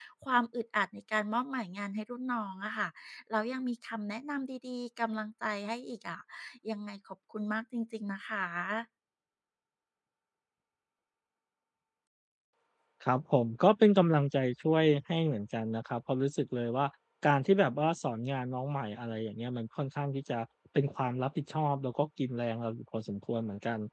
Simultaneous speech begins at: none

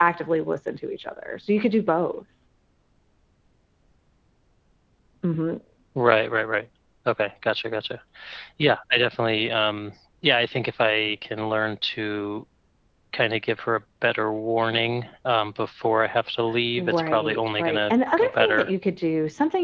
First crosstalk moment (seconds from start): 17 s

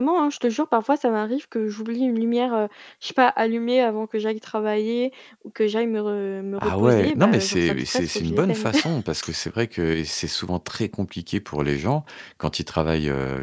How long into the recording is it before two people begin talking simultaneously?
7 s

